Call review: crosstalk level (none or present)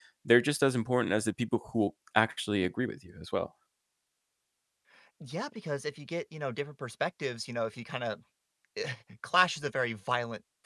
none